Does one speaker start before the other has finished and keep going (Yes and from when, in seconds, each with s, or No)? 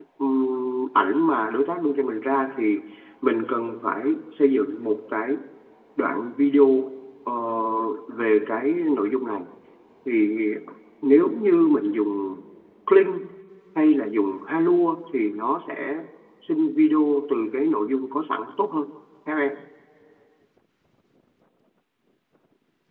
No